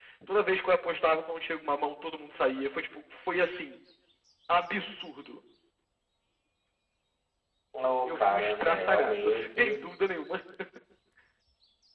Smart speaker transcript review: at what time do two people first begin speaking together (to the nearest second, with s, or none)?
8 s